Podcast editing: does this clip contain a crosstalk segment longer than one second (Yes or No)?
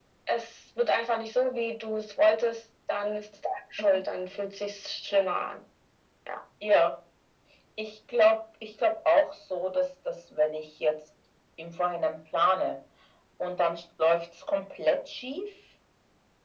No